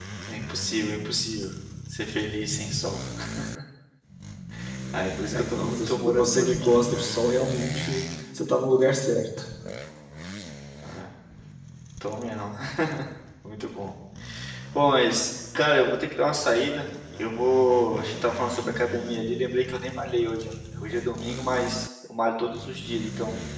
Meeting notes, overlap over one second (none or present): present